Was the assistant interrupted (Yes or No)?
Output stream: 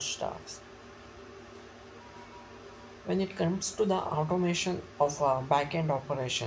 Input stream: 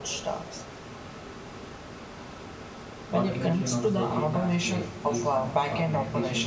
Yes